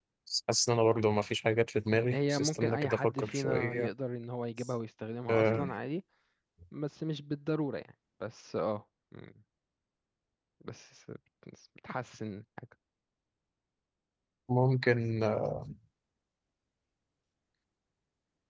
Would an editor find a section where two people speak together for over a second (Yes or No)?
Yes